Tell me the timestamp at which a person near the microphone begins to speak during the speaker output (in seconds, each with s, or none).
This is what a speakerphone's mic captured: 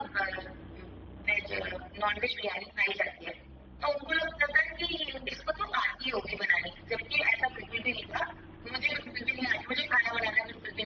none